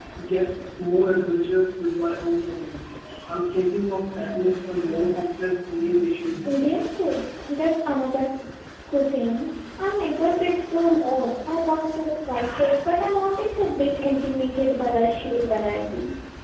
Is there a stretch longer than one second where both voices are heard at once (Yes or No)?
No